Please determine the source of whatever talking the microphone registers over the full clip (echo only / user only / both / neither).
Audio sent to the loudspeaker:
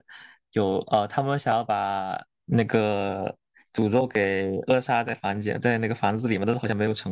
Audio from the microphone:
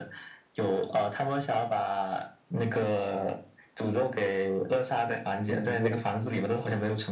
both